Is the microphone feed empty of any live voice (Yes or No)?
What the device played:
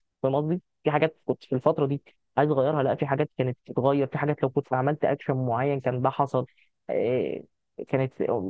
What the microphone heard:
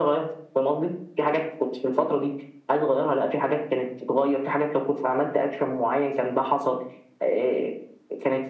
Yes